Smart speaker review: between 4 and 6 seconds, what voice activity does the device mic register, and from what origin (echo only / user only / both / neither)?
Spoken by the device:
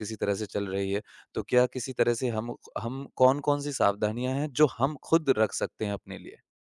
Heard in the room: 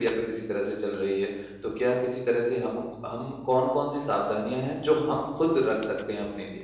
echo only